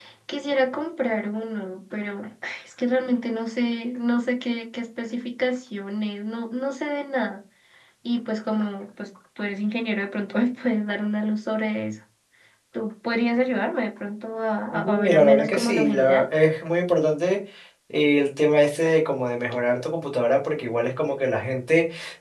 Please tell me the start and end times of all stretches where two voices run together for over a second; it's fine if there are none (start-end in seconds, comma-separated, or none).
14.7-16.2